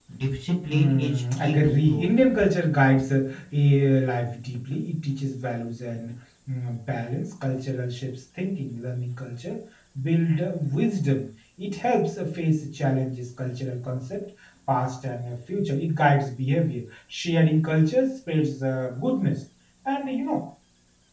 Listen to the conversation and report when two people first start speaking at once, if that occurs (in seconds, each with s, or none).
0.7 s